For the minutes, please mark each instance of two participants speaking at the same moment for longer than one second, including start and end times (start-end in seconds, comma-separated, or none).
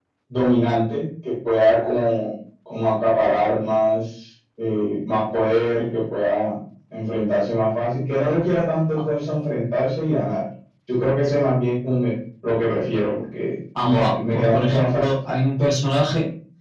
13.8-15.1